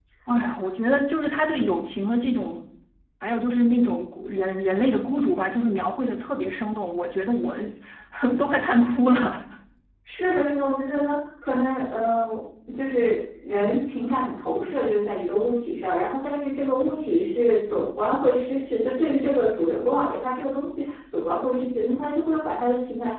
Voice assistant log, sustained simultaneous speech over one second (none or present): none